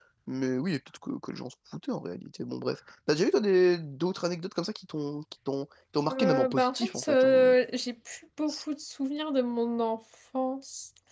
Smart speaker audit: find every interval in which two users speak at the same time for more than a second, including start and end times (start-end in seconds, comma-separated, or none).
6.1-7.3